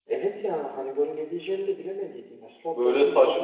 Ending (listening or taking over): taking over